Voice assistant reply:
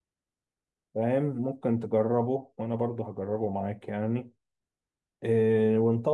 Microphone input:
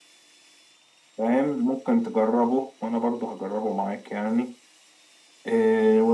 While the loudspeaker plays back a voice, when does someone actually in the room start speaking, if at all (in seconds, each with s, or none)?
none